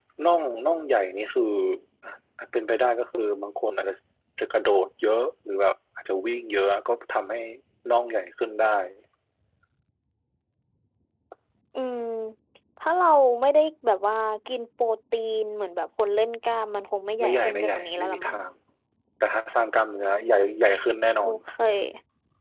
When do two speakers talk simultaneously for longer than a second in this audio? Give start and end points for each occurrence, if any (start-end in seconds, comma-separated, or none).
17.2-18.4